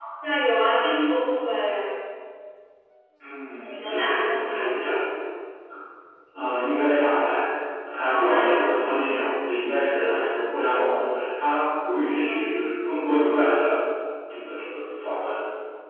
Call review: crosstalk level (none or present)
present